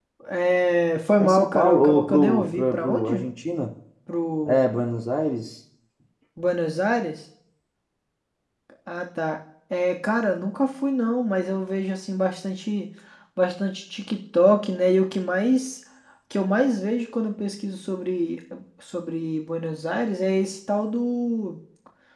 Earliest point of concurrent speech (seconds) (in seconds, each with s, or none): 1.2 s